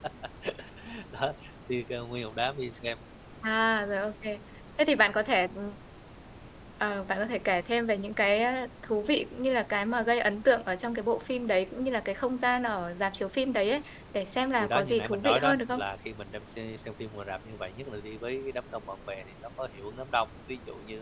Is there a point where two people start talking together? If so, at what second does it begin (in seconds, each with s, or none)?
14.6 s